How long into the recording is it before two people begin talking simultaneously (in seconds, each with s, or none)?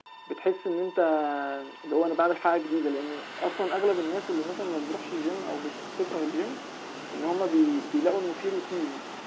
none